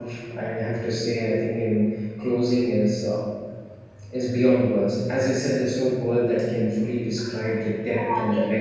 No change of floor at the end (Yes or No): No